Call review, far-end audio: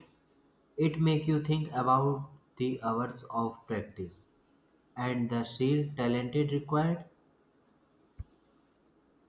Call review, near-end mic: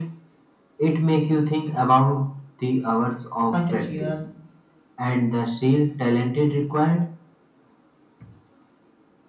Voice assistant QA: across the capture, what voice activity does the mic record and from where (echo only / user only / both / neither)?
both